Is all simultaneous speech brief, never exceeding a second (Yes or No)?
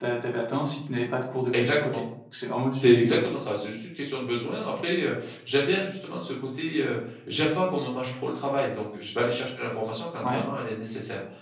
Yes